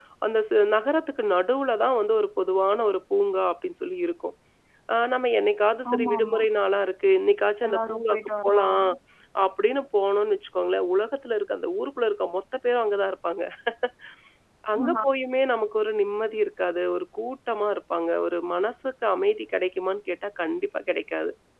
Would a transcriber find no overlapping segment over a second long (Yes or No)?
No